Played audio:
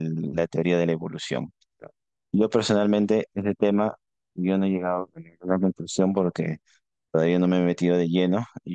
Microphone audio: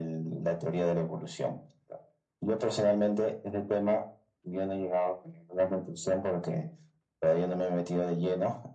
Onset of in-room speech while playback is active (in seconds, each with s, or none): none